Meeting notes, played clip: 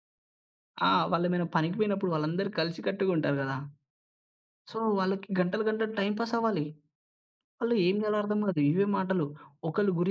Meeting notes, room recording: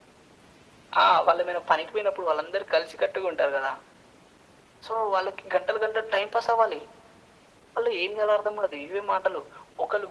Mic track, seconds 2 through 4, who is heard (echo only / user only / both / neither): echo only